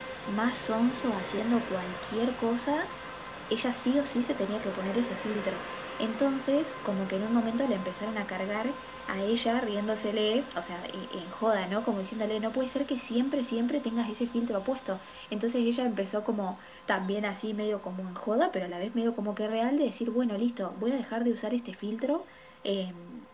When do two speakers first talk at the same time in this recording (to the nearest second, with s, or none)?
none